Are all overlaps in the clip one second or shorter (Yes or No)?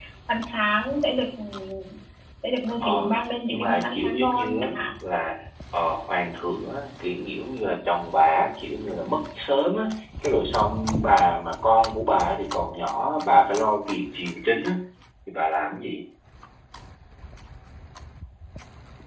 No